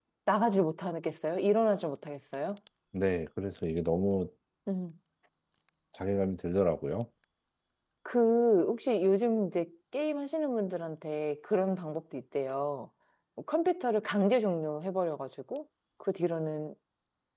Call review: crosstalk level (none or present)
none